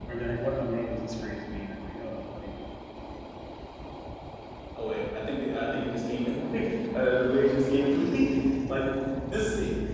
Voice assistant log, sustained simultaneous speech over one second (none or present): none